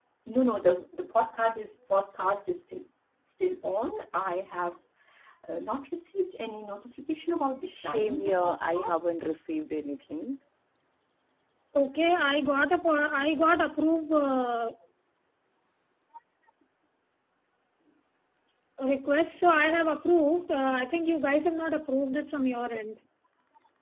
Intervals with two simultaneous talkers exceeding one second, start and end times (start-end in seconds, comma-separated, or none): 7.7-9.0